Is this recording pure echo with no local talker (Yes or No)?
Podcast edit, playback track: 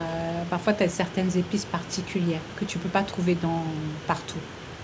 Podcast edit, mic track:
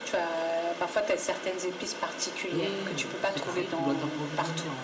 No